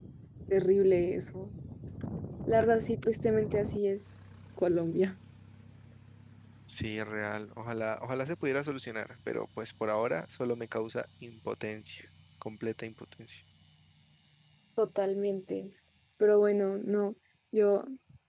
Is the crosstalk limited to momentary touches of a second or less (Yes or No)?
Yes